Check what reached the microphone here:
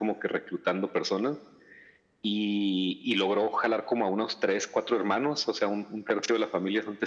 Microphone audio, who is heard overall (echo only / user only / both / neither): echo only